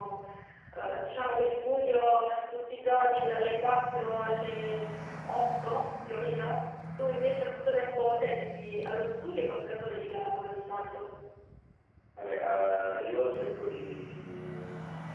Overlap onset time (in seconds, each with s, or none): none